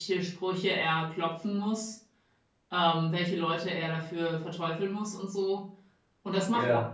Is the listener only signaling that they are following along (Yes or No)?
Yes